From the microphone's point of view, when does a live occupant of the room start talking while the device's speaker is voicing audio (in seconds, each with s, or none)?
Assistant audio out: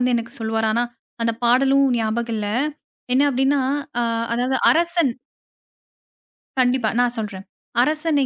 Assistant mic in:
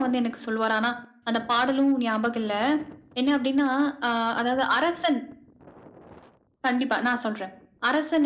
none